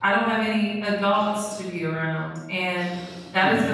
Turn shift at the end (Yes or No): No